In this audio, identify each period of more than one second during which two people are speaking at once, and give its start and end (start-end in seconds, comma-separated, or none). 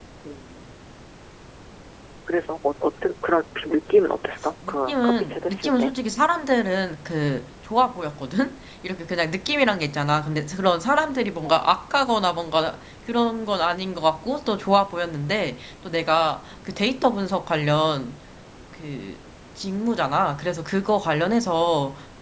4.7-5.9